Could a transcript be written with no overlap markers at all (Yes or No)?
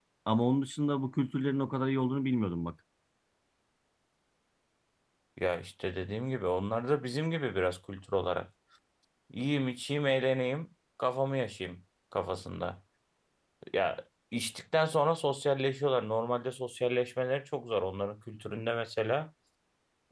Yes